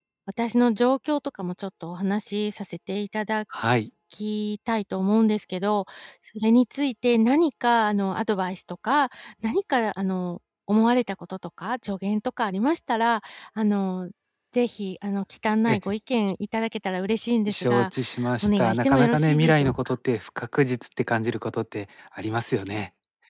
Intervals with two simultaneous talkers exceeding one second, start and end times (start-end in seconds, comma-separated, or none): 18.4-19.9